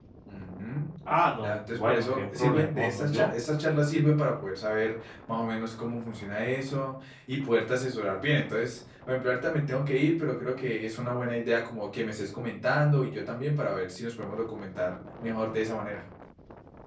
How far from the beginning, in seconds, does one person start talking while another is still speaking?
1.4 s

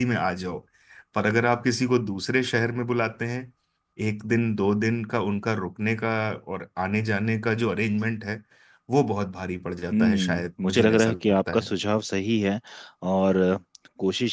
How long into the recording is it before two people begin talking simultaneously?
9.9 s

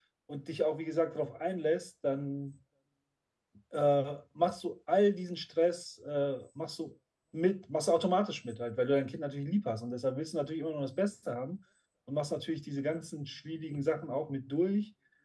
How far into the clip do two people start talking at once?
none

